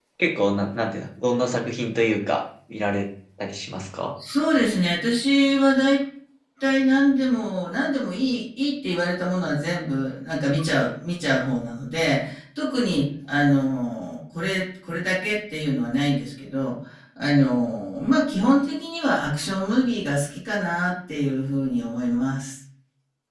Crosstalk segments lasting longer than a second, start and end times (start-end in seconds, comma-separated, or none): none